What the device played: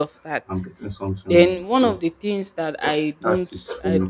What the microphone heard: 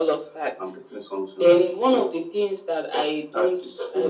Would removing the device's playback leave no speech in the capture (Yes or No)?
Yes